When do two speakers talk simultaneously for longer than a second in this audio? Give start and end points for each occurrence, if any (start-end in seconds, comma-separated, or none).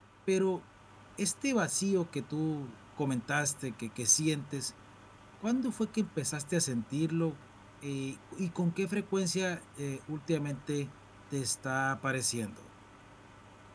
none